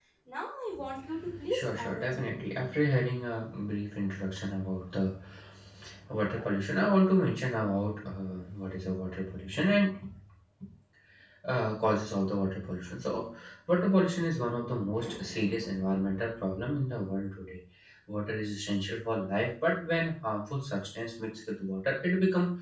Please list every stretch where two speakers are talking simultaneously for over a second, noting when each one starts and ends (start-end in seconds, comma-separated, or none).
1.5-2.7